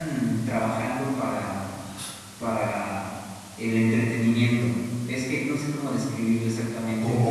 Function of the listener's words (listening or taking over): listening